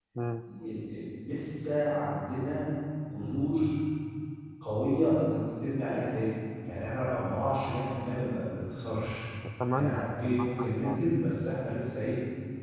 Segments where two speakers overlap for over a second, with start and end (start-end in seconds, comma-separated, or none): 9.7-11.0